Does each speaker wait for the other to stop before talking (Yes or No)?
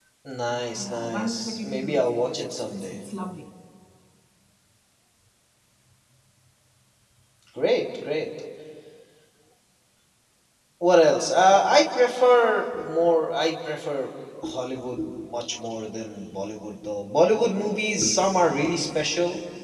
No